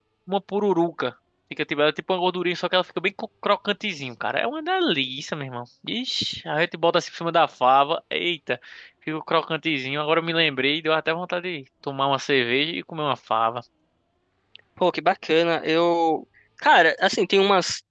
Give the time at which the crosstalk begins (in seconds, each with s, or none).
none